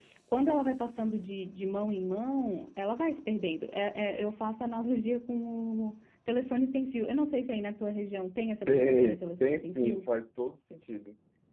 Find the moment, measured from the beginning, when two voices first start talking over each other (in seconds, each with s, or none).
8.7 s